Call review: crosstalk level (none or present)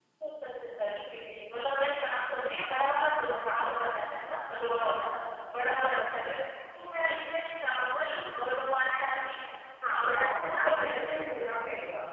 present